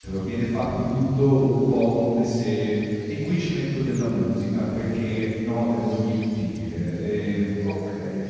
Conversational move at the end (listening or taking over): listening